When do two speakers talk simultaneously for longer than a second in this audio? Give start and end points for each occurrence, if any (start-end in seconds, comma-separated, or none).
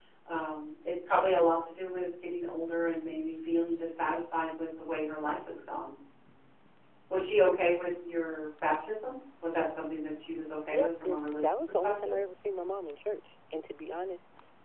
10.7-12.2